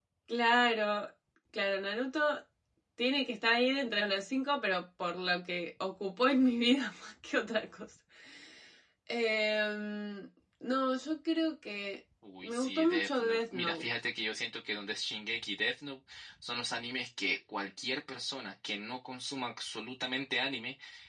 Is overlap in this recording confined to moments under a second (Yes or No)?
No